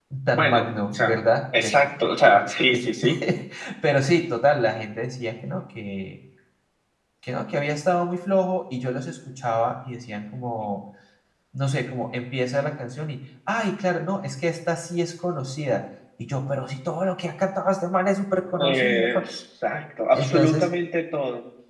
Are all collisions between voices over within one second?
No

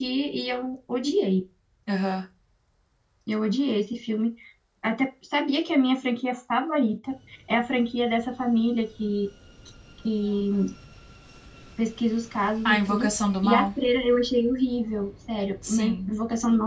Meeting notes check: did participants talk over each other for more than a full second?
No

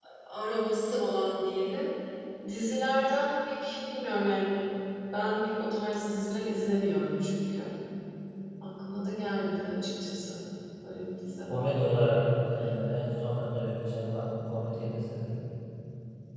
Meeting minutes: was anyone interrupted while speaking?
No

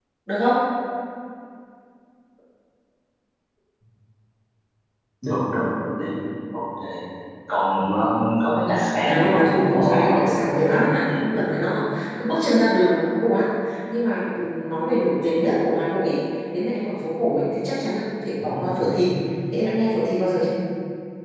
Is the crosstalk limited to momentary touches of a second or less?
No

